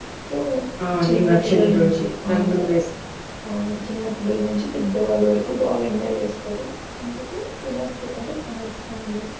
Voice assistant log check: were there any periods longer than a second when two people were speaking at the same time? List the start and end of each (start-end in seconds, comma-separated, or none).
1.0-2.4